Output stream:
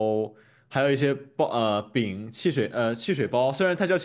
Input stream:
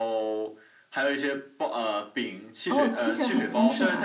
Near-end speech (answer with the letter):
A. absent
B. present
B